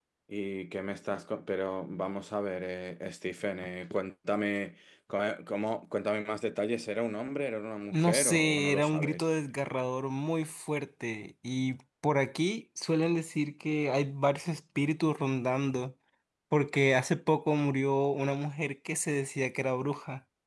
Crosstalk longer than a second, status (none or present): present